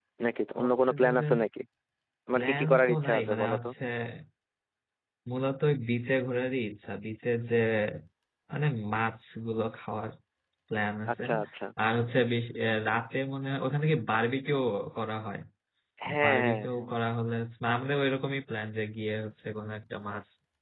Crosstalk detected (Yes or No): Yes